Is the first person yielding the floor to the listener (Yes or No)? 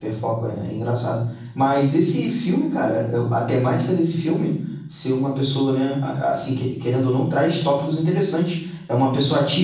No